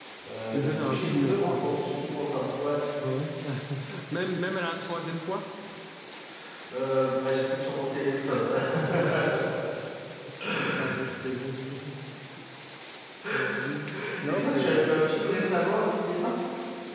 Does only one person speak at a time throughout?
No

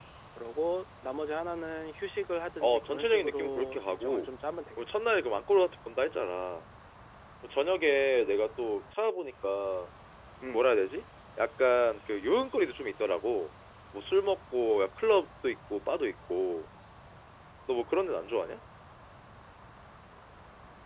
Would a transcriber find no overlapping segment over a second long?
No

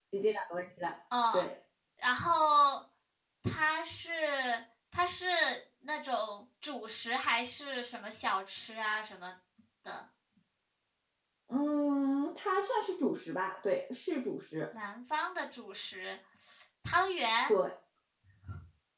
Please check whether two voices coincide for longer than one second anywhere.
No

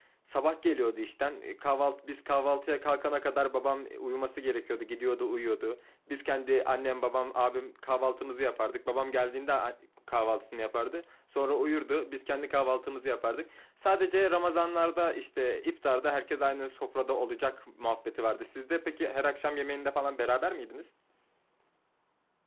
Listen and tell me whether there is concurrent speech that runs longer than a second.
No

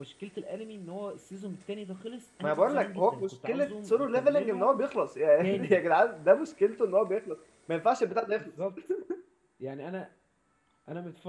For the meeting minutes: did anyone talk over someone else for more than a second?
Yes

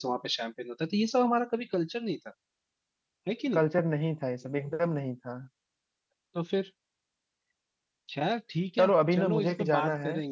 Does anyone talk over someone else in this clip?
Yes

